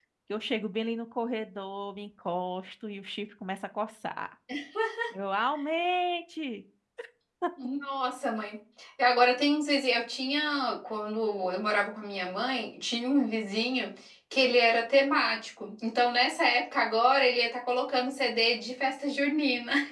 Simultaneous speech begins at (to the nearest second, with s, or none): none